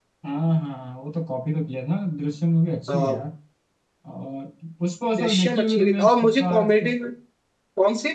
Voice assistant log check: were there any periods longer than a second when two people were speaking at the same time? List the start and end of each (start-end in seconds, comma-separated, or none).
5.2-6.9